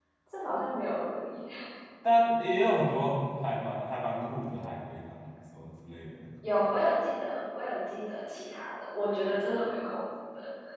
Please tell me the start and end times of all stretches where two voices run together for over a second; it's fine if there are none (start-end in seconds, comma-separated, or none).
none